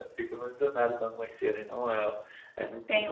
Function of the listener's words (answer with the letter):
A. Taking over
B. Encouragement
A